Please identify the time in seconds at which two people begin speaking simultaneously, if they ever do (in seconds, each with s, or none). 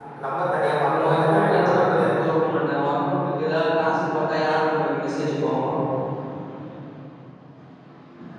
0.9 s